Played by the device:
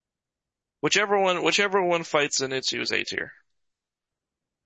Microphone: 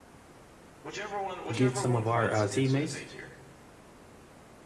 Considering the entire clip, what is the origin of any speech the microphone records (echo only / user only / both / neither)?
both